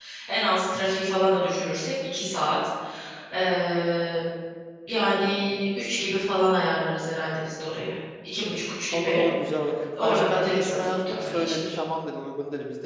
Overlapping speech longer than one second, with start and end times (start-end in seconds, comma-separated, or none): 10.0-11.7